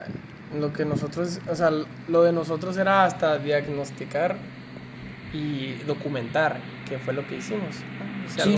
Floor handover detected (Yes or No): Yes